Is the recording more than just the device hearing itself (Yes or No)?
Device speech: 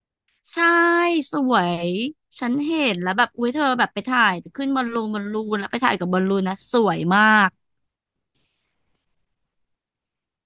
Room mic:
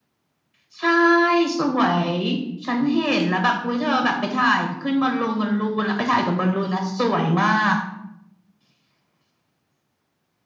No